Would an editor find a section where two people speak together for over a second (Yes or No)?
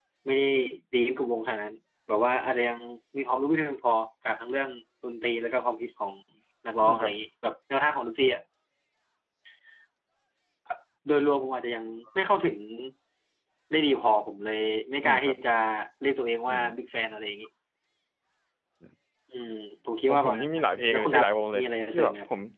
Yes